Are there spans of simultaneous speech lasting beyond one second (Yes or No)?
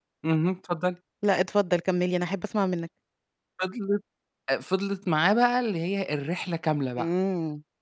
No